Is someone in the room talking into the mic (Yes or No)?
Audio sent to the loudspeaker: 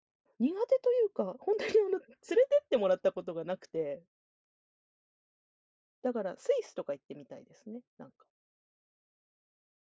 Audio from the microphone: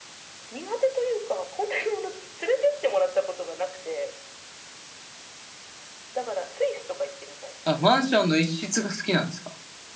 Yes